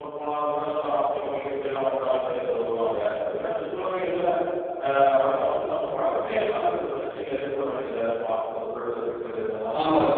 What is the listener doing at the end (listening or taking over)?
taking over